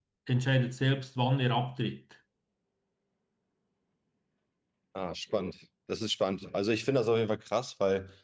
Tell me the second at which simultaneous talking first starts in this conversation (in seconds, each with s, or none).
none